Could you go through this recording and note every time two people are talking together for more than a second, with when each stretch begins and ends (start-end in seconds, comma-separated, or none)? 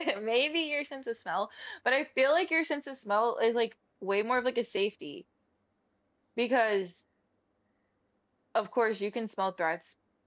none